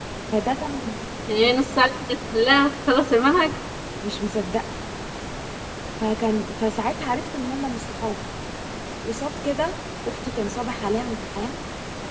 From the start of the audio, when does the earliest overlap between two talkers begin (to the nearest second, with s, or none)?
none